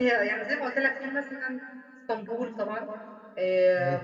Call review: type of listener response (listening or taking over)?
listening